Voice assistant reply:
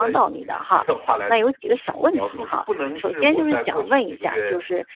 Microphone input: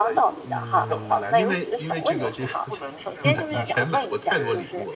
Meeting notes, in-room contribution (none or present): present